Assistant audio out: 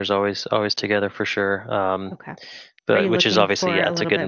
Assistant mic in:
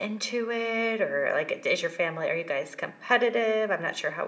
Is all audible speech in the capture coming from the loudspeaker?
No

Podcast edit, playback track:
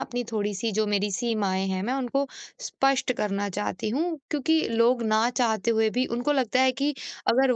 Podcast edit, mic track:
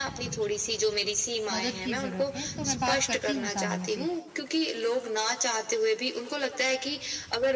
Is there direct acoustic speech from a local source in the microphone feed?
Yes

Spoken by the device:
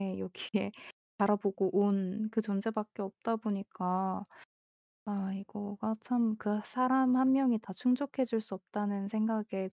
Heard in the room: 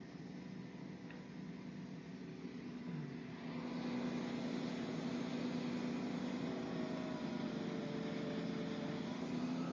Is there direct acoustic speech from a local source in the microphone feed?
No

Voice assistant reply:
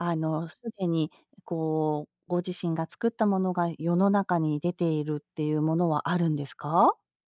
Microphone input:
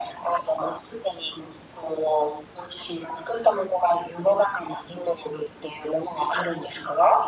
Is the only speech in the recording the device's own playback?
Yes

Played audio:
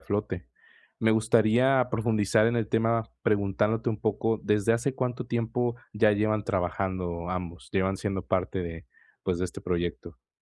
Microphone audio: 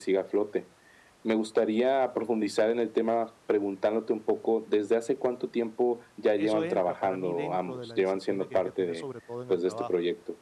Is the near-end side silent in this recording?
No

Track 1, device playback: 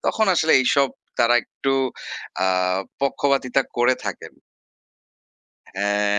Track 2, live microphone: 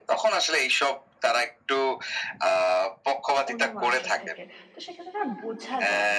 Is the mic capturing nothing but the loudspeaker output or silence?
No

